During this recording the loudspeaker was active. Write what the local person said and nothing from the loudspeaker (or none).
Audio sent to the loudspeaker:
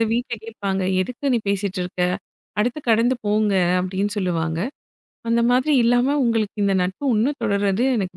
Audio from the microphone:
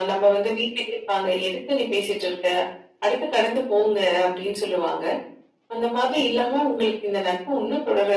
none